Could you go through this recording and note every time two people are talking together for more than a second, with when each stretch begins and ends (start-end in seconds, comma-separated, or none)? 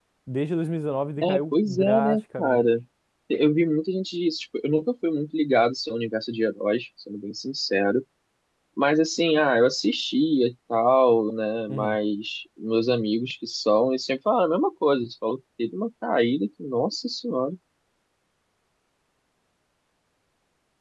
1.2-2.7